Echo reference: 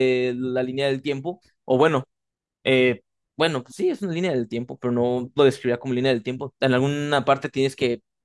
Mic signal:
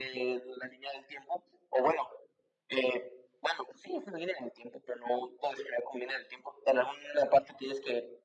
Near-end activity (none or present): none